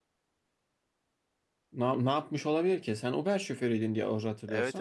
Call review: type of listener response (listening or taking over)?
taking over